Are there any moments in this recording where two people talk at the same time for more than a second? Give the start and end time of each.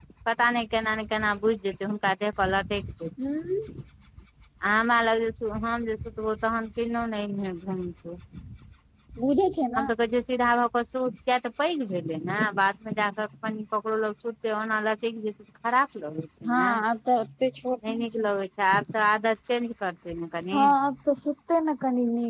none

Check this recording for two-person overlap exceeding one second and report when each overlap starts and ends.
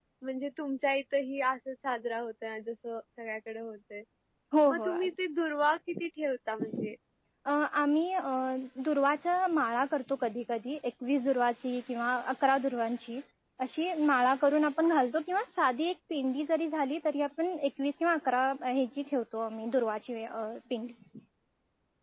none

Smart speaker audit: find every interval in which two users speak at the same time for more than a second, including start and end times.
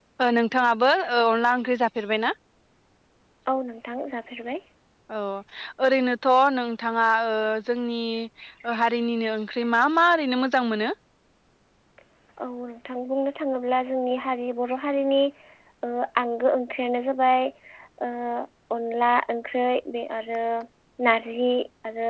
none

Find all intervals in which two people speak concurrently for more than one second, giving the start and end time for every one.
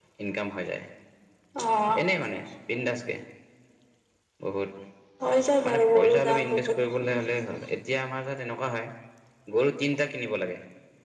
5.7-7.2

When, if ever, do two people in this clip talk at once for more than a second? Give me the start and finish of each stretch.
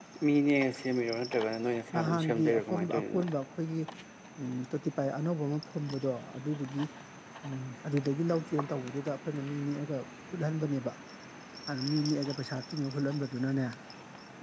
2.0-3.2

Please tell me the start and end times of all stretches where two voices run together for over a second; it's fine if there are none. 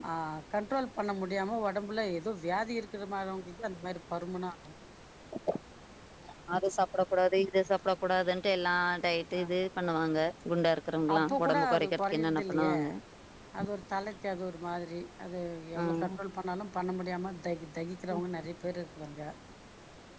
11.2-12.7

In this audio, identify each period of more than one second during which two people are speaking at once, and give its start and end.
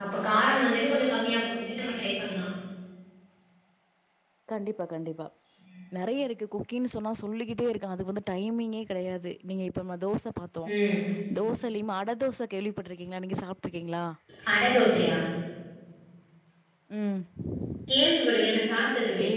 none

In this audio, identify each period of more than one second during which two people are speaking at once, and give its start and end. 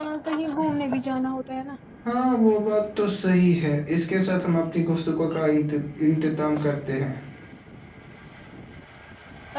none

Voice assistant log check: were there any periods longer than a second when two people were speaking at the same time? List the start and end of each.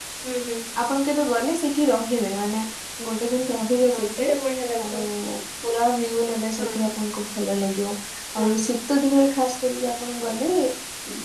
none

